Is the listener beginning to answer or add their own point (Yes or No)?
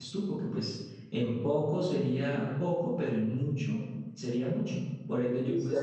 Yes